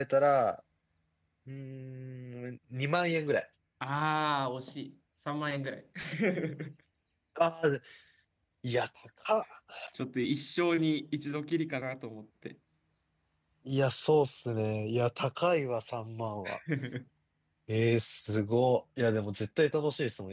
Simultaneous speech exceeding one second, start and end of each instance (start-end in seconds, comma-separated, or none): none